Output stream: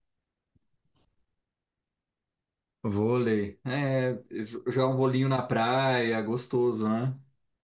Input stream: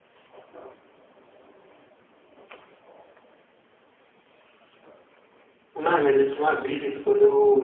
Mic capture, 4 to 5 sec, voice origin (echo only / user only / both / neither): neither